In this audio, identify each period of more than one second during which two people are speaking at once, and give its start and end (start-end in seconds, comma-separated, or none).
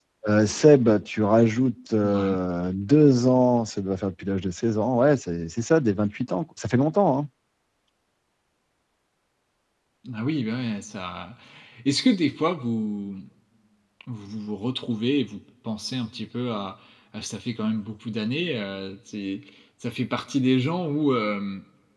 none